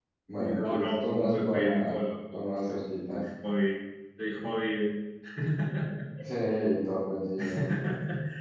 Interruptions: present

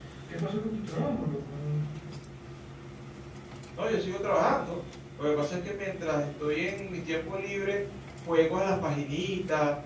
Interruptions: none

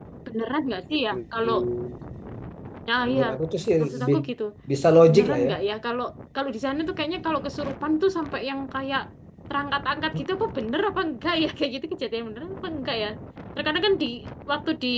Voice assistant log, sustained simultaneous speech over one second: none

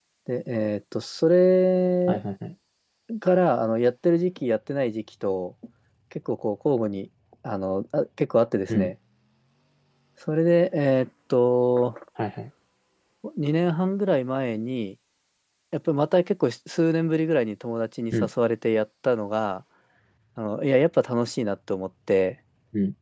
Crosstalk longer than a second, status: none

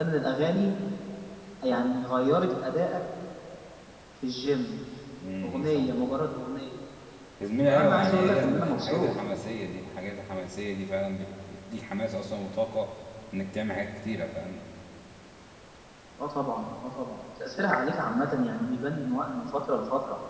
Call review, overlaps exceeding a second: present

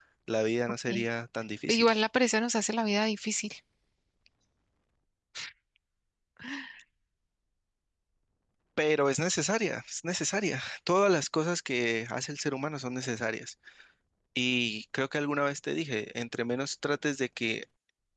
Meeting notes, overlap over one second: none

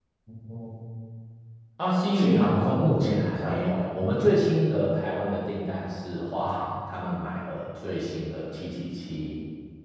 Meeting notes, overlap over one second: present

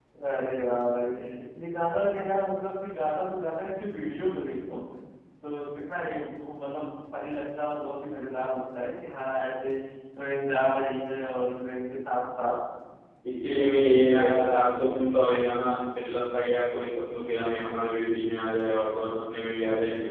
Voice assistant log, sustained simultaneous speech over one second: present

